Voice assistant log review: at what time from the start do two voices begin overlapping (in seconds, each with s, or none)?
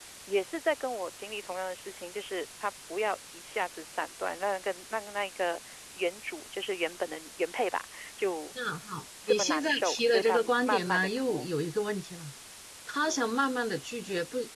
9.3 s